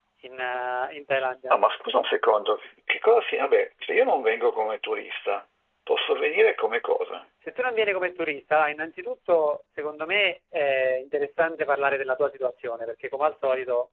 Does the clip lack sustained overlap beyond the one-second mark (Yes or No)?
Yes